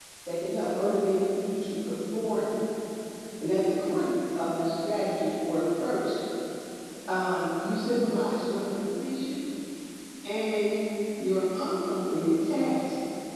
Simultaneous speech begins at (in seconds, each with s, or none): none